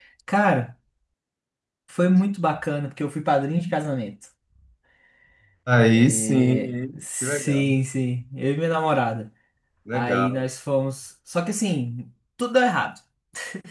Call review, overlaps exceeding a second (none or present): present